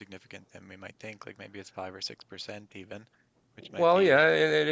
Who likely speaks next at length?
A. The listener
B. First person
A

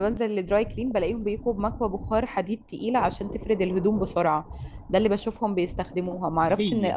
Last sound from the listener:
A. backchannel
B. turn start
A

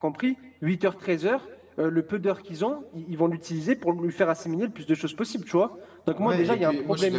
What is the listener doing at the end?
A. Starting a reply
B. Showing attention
A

